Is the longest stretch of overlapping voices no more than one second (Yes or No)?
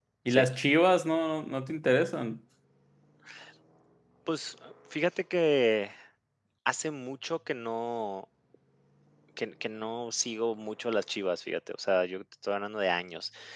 Yes